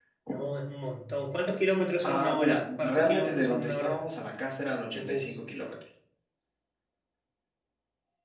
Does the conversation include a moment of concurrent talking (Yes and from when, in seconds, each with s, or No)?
Yes, from 2.0 s